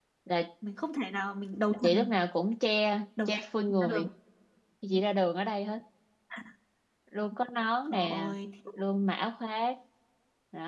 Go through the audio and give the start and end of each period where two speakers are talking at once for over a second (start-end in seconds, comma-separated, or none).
none